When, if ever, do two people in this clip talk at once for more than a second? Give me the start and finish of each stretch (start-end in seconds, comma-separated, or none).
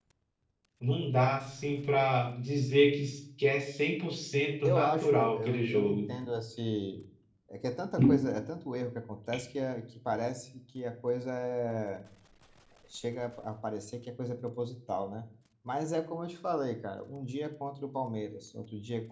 4.6-6.0